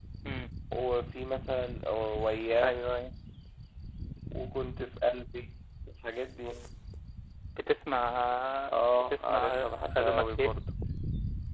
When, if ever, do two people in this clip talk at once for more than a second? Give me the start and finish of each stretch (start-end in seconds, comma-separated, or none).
9.1-10.5